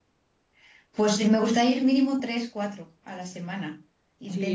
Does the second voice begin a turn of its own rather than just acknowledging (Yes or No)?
Yes